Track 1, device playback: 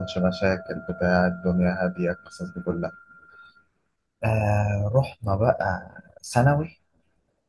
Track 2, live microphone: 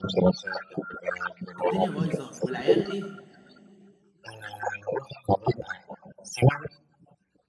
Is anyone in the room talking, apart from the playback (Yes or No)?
Yes